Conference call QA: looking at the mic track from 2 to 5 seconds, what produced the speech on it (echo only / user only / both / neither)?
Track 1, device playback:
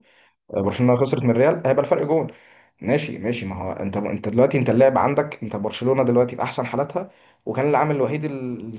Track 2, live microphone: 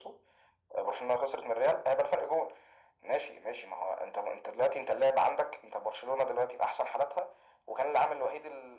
echo only